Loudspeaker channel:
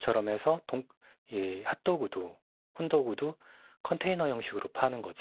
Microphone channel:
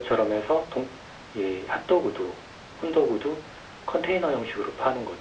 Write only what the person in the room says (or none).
none